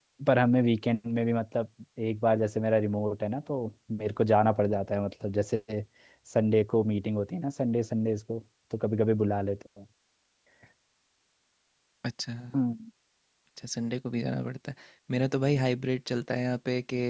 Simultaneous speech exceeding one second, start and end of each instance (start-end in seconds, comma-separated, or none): none